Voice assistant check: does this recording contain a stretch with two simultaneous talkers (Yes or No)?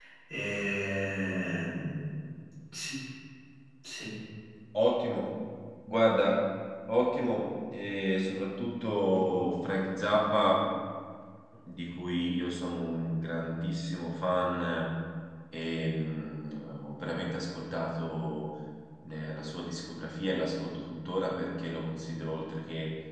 No